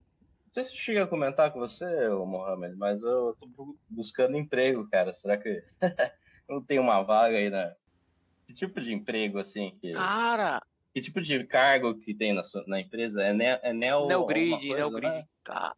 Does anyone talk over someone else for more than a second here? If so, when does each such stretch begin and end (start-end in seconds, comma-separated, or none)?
14.0-15.2